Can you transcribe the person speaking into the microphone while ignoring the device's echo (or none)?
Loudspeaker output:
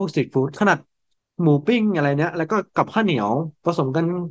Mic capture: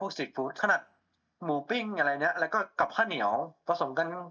none